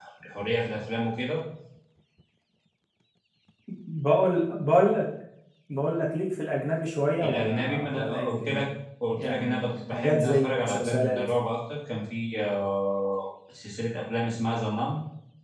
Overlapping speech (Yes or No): Yes